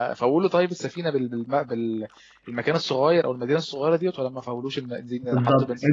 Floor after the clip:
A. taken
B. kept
A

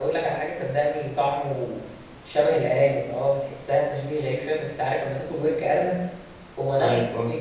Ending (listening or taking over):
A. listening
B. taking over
A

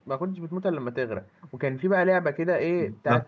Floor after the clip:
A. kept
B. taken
A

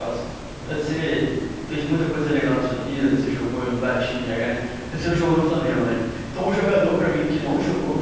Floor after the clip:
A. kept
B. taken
A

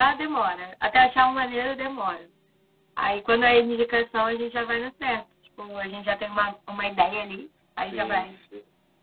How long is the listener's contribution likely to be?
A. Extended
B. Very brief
A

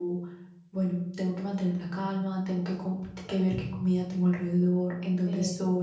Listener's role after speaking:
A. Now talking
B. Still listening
B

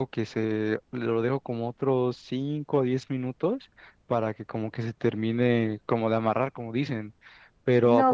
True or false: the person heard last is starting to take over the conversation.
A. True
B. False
A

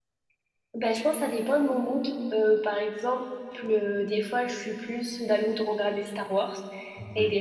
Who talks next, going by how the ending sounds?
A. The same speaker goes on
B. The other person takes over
A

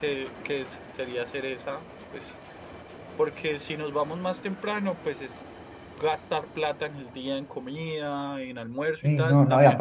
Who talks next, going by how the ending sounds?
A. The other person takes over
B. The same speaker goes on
A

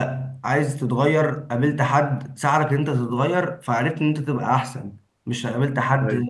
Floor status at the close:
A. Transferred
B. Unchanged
B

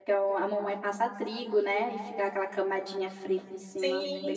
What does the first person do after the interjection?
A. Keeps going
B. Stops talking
B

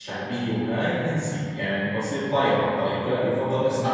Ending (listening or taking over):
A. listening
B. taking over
B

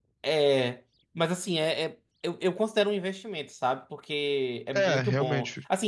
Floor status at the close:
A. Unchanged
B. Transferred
A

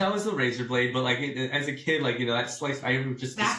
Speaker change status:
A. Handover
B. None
B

